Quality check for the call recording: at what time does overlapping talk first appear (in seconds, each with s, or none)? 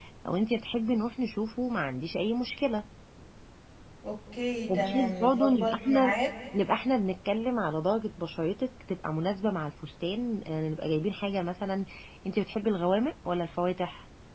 4.7 s